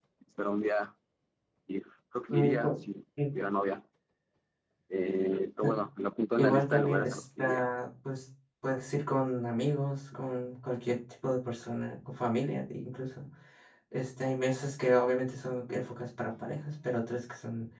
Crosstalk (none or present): present